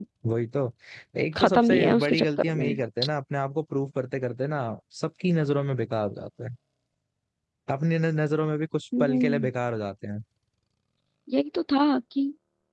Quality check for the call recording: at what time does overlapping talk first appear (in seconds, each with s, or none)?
1.4 s